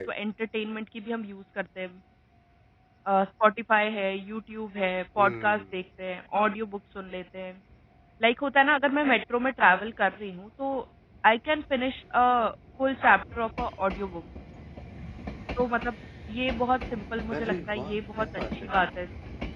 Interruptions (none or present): present